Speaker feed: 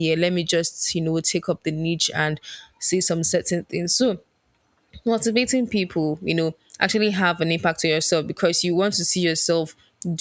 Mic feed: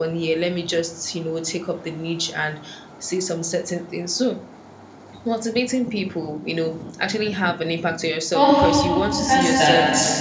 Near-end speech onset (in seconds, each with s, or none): 8.3 s